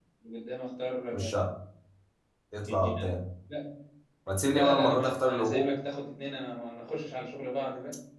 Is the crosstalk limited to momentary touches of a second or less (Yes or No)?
No